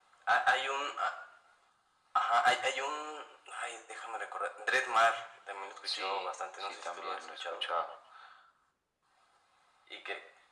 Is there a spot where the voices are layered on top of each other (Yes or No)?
Yes